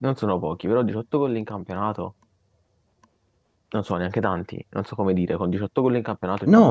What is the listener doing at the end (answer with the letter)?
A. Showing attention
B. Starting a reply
B